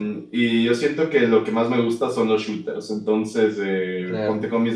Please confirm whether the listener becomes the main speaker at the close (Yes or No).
No